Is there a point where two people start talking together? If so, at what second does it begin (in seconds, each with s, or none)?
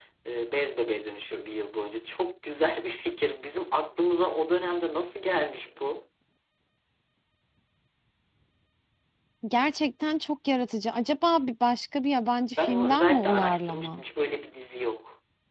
12.6 s